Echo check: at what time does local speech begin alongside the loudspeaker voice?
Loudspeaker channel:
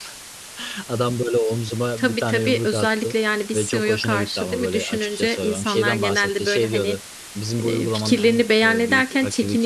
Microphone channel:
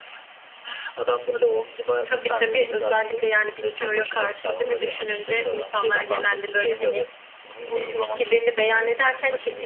none

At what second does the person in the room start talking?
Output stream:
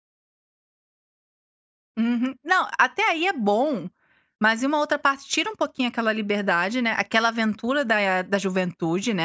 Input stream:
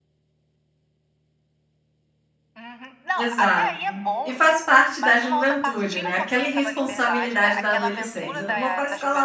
3.1 s

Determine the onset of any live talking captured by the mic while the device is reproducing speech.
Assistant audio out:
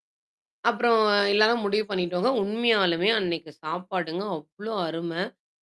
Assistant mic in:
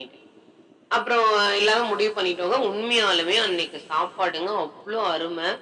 none

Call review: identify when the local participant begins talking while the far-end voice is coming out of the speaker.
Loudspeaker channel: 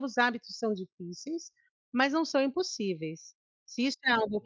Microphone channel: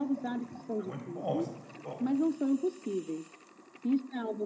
0.8 s

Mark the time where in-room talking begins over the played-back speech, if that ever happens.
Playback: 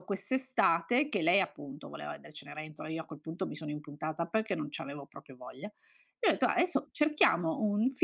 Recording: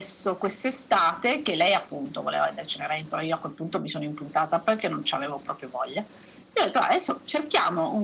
none

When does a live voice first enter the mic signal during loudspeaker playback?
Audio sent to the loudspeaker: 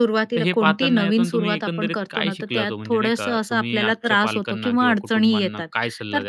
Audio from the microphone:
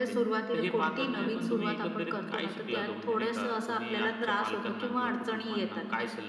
none

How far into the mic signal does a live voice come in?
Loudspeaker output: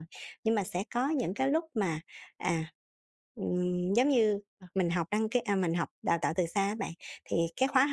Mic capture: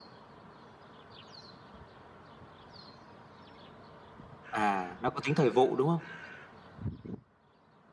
4.5 s

